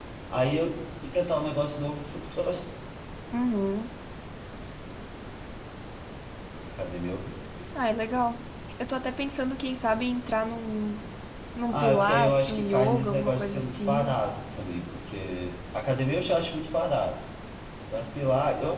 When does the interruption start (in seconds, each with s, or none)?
11.7 s